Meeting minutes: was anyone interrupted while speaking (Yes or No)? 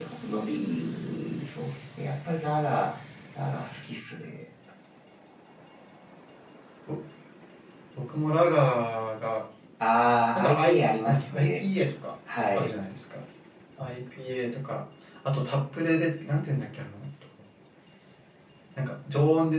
Yes